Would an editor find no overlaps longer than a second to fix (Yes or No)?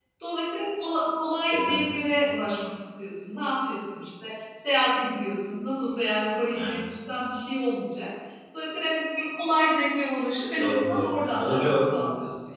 No